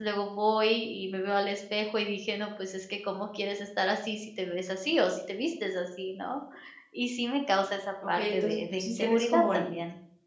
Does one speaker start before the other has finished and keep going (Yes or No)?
Yes